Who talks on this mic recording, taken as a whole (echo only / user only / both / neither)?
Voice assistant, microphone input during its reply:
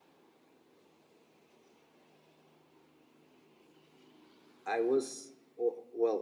user only